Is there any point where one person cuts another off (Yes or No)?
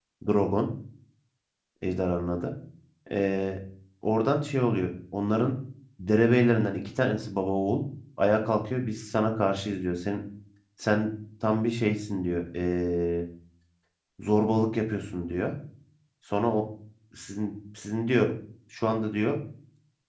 No